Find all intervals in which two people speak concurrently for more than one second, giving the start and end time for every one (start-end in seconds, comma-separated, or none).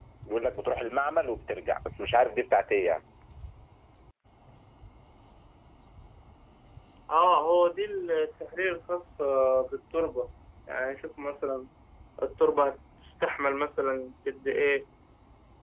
none